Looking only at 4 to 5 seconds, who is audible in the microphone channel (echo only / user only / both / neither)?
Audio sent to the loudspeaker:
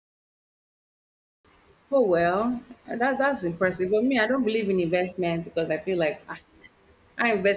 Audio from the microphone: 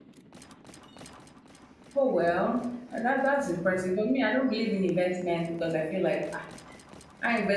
echo only